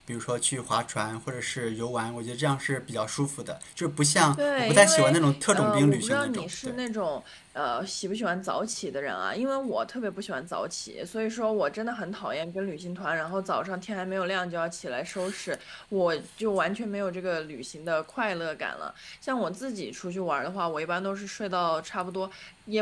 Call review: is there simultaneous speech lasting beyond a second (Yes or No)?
Yes